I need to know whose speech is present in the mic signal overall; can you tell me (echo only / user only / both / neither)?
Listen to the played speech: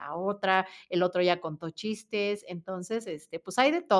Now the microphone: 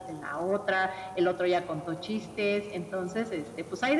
echo only